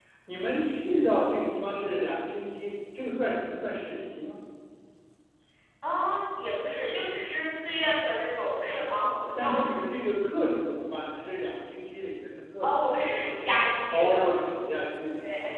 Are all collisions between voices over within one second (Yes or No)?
Yes